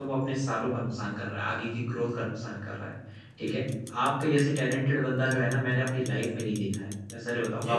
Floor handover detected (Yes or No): No